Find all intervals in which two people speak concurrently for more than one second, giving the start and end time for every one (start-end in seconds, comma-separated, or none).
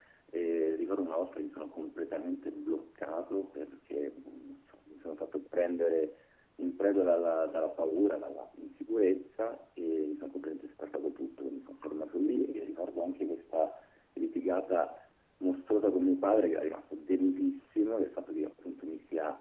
none